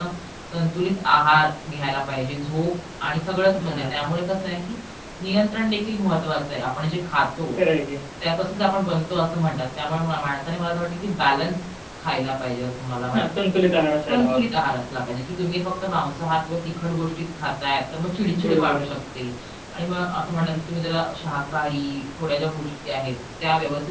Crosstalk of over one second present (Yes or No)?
No